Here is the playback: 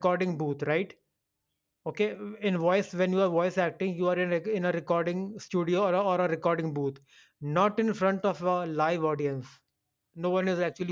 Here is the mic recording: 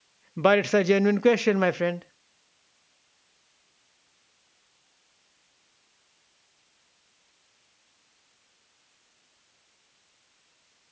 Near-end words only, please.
but it's a genuine question, my friend.

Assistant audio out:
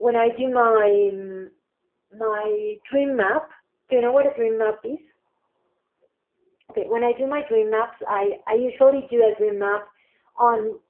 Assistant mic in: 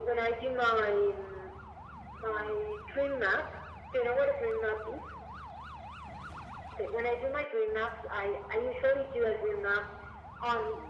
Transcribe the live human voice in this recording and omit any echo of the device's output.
none

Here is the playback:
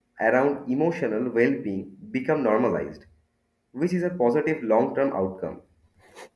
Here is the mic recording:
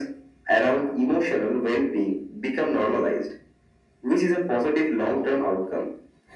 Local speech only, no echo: none

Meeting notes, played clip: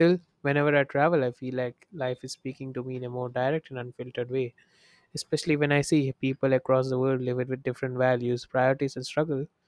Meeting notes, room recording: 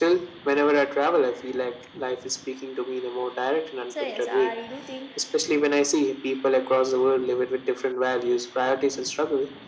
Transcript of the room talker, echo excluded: so yes, I do think

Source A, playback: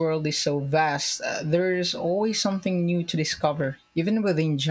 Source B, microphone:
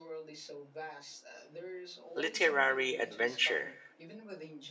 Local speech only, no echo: literary adventure?

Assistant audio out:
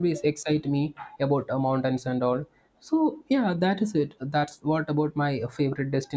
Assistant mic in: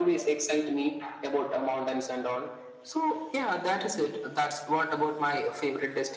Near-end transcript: none

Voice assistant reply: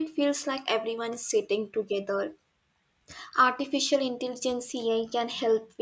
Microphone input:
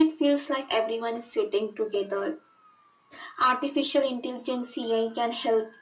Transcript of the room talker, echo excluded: none

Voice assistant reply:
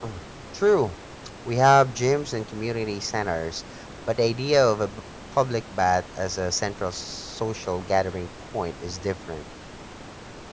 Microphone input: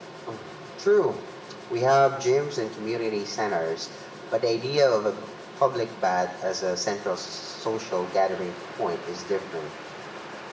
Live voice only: none

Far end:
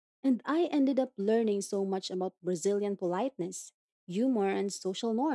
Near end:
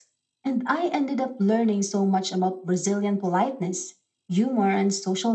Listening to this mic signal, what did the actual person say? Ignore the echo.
none

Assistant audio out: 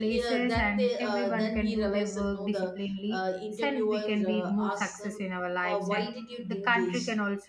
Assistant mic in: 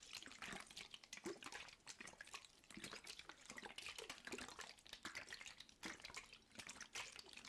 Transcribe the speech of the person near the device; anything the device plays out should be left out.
none

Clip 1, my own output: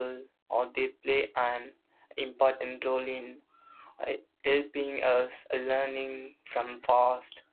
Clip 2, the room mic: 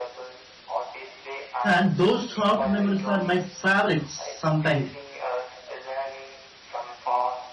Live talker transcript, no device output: And those soft memories are my favorites sometimes.

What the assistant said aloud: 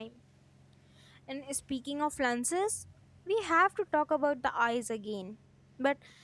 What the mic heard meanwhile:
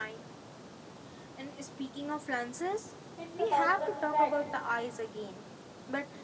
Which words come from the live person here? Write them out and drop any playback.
it's about the fact

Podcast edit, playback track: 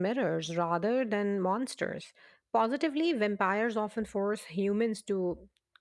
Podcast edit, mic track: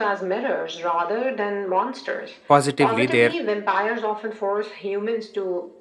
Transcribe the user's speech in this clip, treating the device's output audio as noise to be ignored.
Positively, their

